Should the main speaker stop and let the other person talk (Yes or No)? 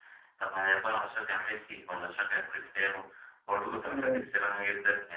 No